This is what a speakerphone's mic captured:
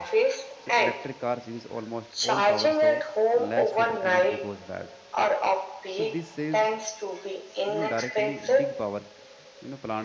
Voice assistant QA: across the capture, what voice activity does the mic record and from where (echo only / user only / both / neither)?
both